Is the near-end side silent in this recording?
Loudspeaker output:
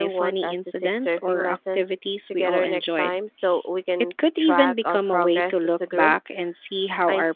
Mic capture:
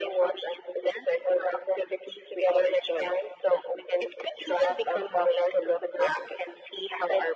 Yes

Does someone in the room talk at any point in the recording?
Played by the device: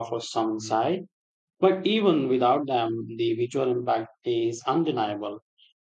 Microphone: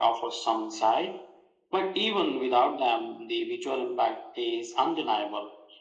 No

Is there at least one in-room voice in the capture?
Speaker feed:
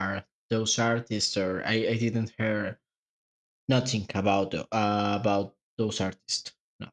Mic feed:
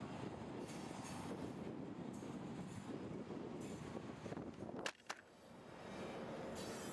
No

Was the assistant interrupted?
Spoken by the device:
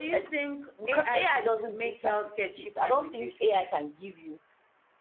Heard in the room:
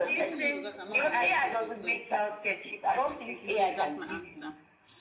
Yes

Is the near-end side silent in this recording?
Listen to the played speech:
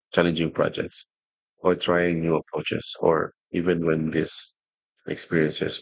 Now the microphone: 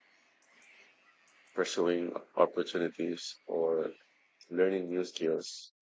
No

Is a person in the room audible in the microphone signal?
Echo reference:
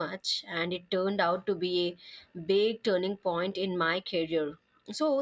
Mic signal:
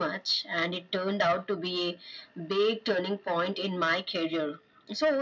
No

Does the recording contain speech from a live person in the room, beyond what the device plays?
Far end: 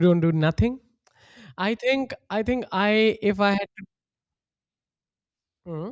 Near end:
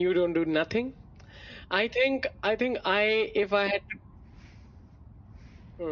No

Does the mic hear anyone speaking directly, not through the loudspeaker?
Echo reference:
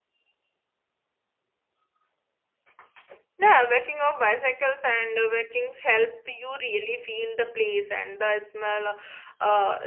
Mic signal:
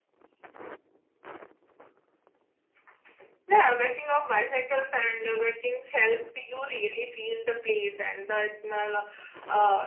No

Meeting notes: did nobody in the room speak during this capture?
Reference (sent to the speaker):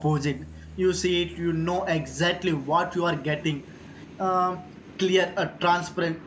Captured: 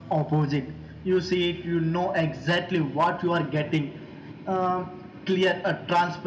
Yes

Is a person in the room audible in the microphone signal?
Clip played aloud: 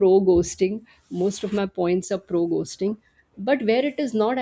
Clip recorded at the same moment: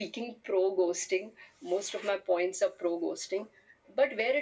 No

